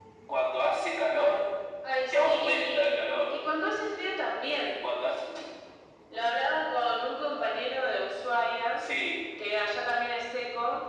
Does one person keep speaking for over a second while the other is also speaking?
Yes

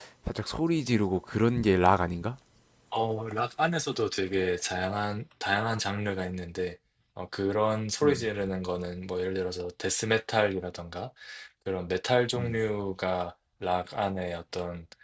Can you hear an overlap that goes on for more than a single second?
No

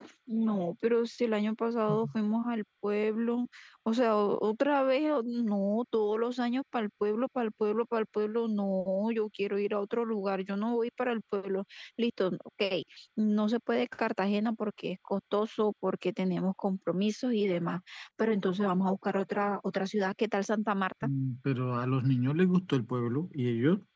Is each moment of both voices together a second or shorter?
Yes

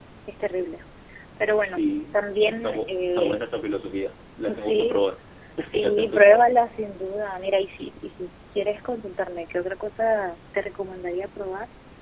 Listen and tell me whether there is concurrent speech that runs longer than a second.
Yes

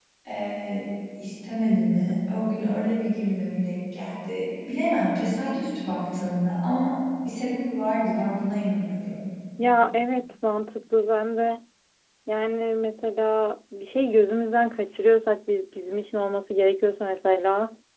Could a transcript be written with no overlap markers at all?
Yes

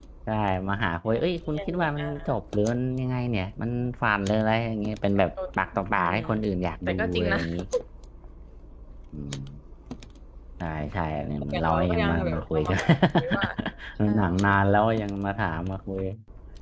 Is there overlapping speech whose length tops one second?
Yes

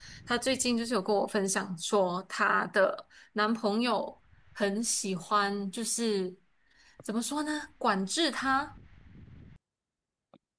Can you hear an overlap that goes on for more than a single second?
No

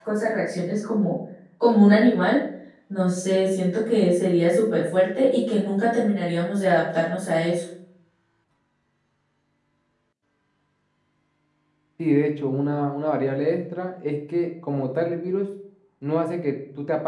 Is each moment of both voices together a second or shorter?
Yes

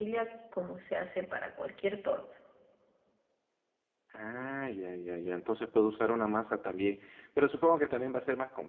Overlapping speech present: No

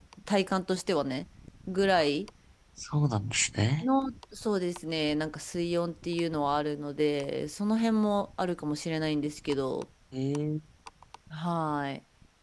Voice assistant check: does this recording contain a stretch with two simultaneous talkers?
No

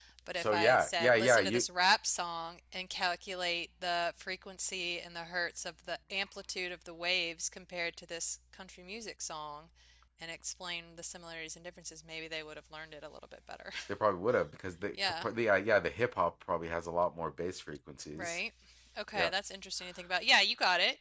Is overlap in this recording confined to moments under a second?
No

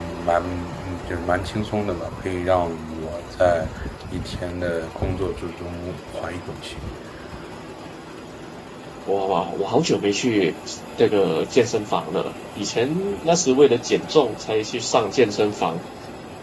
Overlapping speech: No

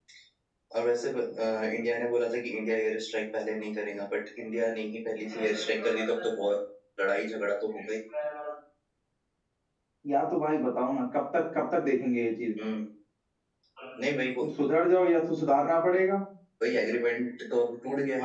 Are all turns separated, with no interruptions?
Yes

